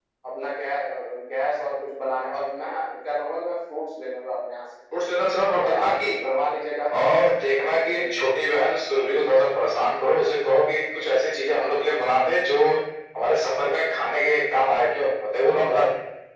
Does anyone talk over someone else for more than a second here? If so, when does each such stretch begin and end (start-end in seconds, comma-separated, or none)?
none